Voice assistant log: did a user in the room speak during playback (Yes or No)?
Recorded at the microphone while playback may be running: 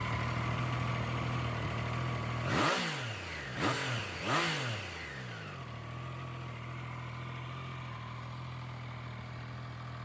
No